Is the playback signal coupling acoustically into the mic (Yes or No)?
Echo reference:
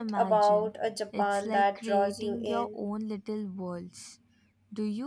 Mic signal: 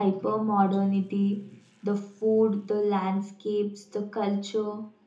No